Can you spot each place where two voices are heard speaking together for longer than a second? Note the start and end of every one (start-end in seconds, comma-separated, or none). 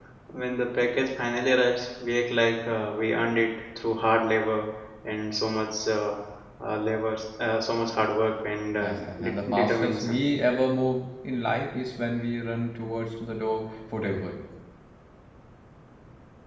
8.8-10.2